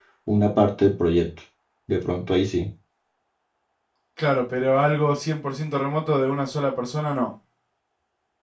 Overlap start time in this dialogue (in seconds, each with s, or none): none